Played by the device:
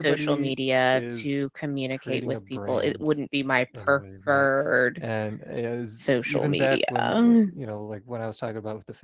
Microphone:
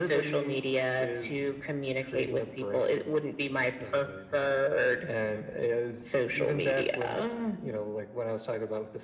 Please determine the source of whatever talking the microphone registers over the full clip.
echo only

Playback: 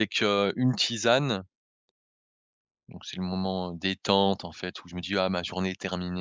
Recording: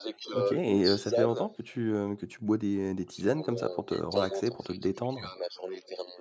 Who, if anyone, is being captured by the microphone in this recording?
both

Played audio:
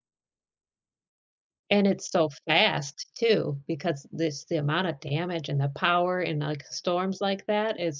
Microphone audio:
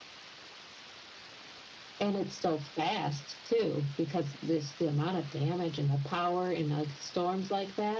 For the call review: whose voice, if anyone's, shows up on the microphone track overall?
echo only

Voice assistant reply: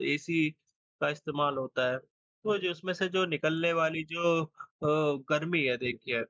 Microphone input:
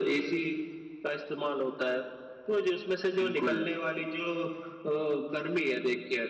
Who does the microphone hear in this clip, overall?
both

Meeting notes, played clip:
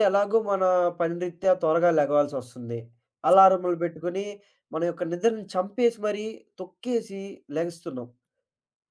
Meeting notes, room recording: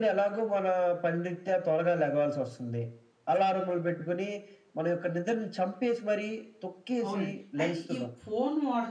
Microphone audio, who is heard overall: both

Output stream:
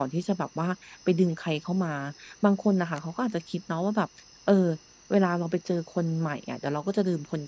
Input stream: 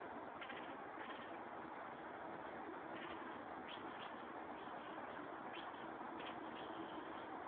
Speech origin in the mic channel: neither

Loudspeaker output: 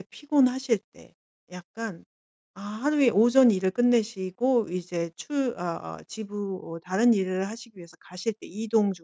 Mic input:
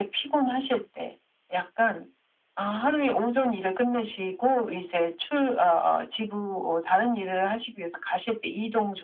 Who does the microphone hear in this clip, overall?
echo only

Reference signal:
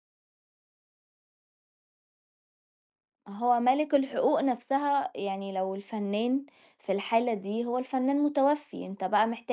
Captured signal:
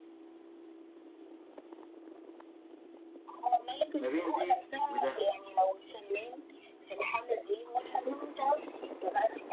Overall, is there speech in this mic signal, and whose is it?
both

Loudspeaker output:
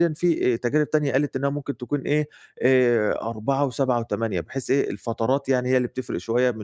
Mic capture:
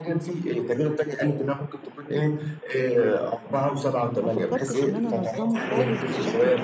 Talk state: both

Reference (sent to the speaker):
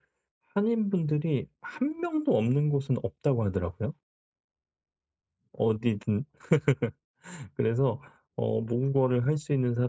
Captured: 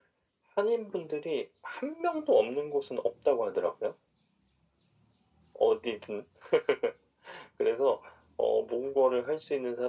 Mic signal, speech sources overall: echo only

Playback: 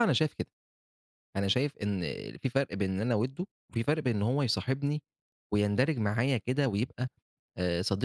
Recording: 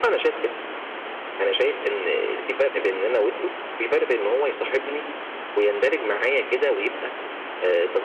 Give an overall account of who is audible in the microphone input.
echo only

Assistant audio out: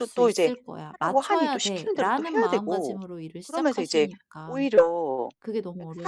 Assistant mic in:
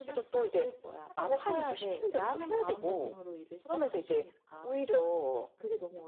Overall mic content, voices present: echo only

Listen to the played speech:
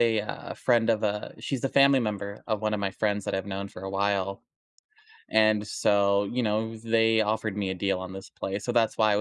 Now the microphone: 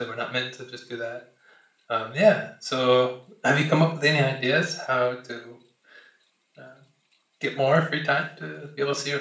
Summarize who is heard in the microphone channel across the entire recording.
user only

